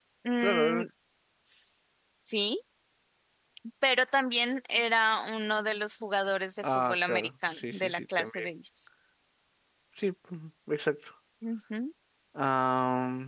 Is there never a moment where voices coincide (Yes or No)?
No